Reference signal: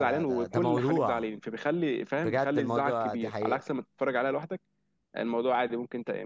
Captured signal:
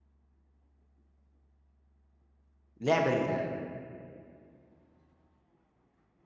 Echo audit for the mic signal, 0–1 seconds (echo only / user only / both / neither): neither